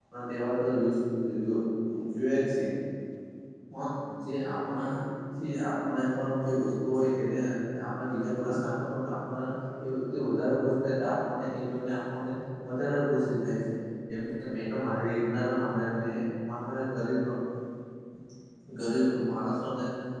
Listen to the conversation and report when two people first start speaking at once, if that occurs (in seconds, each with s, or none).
none